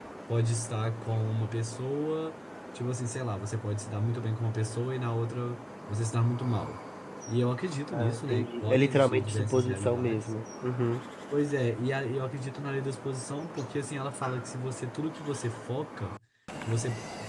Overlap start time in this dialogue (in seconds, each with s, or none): 7.9 s